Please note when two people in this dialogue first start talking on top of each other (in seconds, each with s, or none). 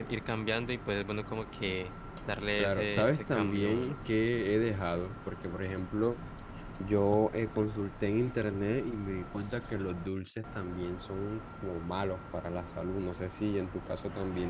2.6 s